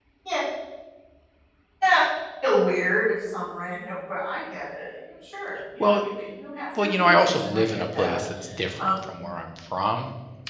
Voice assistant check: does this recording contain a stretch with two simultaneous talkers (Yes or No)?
Yes